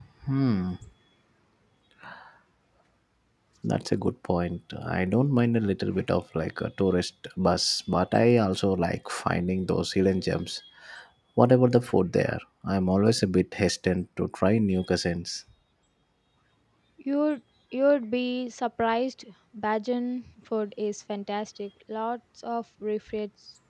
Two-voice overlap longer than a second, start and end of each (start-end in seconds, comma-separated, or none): none